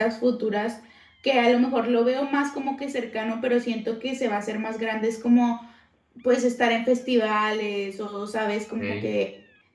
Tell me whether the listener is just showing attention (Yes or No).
Yes